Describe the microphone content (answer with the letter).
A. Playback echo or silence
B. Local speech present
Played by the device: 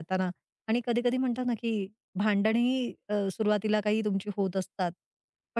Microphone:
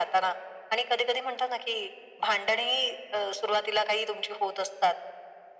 A